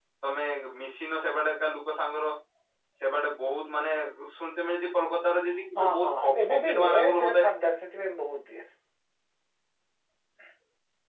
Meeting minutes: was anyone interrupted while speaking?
Yes, from 5.8 s

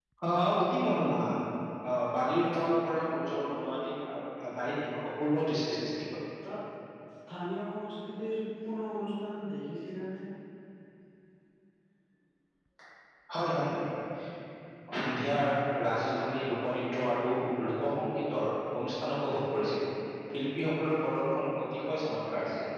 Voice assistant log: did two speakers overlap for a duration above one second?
No

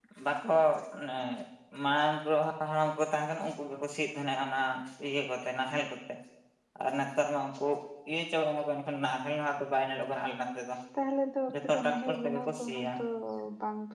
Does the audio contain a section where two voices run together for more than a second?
Yes, from 11.7 s

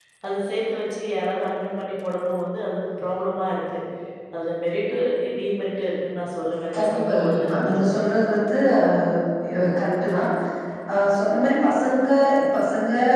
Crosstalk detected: Yes, from 6.7 s

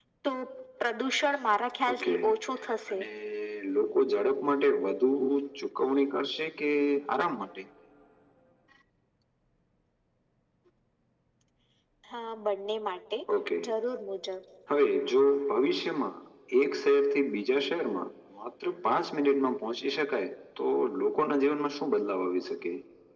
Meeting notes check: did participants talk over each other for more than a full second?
No

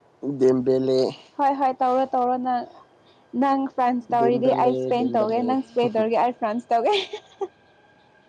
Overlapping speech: Yes, from 4.2 s

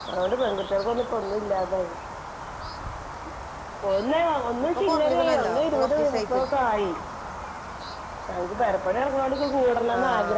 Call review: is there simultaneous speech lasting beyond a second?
Yes, from 4.7 s

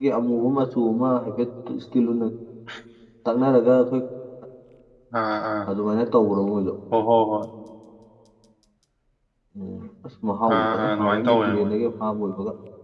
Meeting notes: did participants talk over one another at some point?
Yes, from 10.5 s

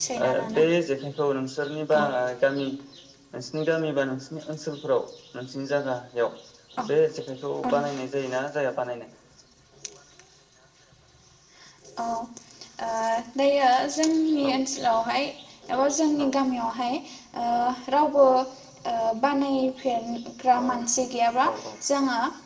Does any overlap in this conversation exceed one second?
No

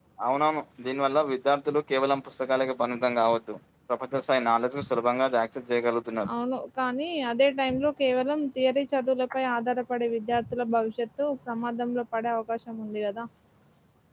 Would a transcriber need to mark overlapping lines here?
No

